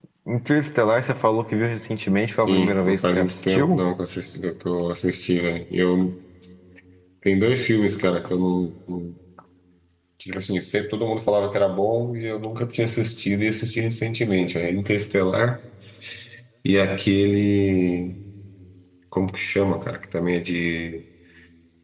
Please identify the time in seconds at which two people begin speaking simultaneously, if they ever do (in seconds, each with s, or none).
2.4 s